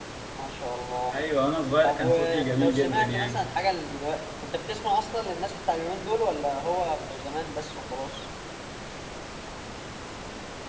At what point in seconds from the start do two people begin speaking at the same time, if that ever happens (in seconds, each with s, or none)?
1.8 s